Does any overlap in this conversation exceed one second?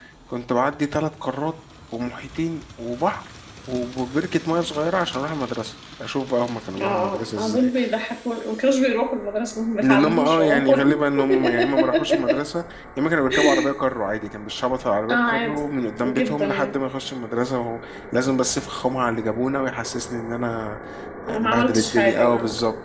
Yes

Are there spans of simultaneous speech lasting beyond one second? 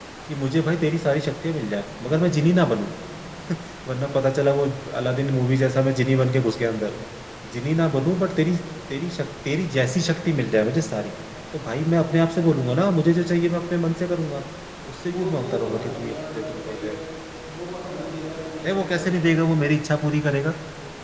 Yes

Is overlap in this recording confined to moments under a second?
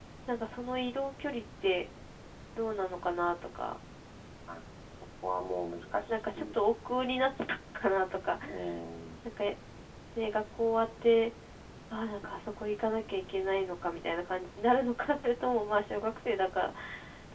Yes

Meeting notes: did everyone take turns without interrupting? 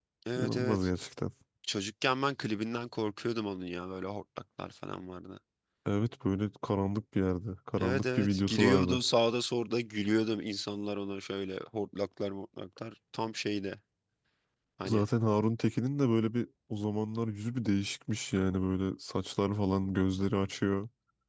No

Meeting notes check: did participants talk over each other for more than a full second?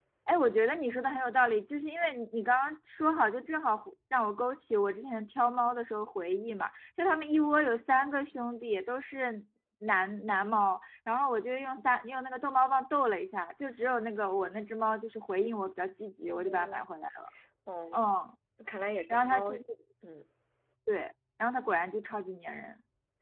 No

